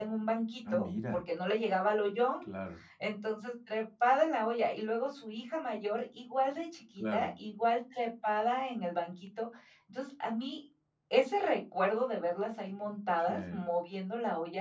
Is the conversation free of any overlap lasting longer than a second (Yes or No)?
Yes